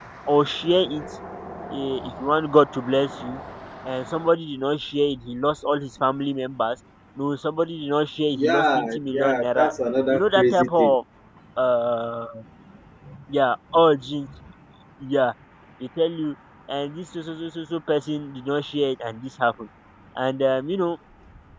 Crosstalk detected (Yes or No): Yes